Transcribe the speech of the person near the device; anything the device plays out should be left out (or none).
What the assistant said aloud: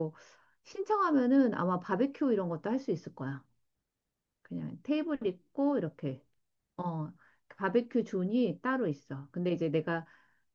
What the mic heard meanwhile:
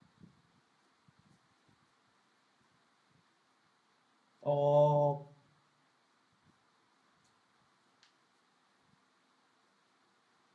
어,